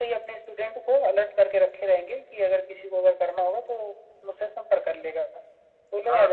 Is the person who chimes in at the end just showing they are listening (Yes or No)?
No